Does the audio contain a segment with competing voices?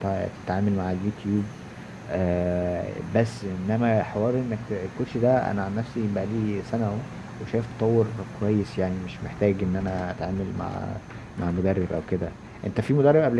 No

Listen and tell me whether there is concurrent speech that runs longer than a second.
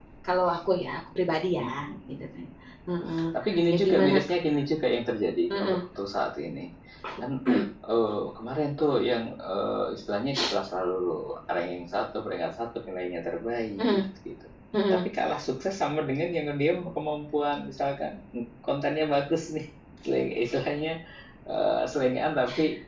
No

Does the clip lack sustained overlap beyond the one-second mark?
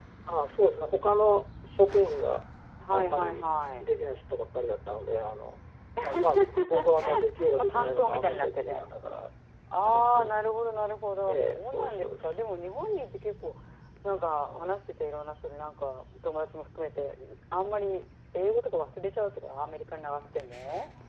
No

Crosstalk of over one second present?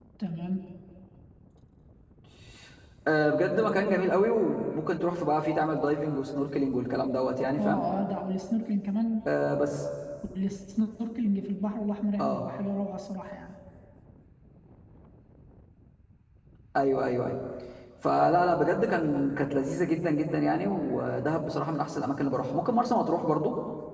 No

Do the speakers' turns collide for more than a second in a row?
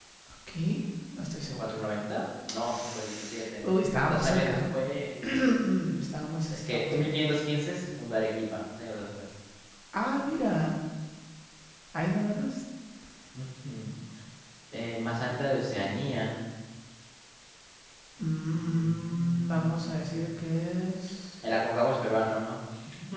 Yes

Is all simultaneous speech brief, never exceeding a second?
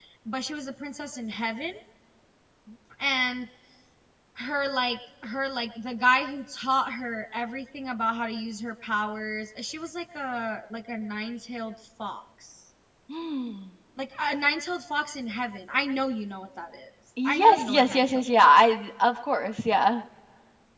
No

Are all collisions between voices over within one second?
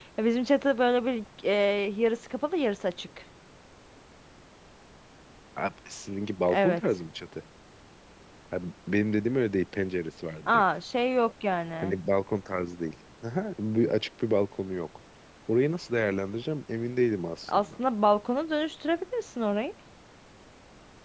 Yes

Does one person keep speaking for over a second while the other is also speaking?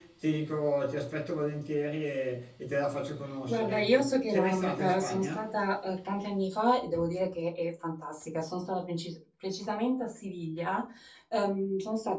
Yes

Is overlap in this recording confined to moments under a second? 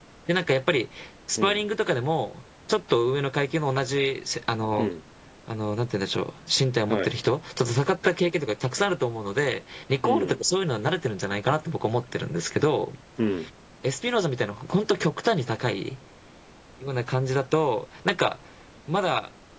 Yes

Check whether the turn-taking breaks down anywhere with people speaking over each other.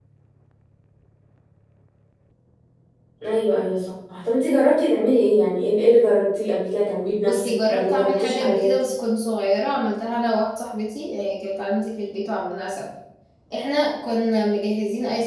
Yes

